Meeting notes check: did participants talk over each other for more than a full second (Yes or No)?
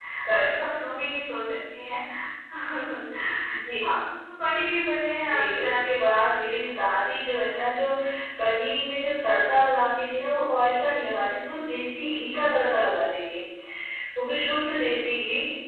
Yes